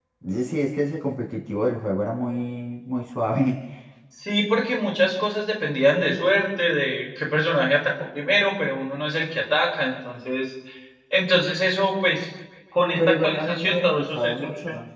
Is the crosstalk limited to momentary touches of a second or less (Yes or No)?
No